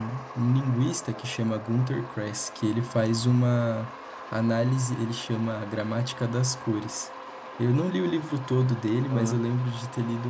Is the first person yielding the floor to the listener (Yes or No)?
No